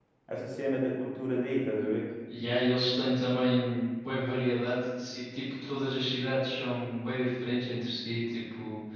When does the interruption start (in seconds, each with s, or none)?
none